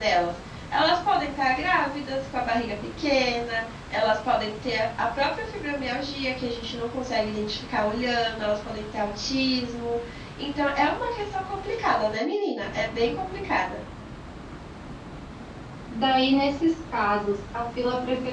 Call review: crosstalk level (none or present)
none